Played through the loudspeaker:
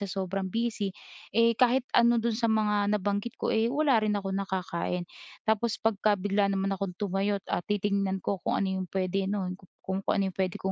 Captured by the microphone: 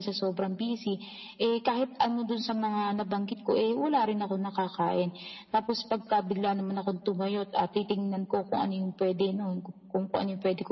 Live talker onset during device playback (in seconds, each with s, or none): none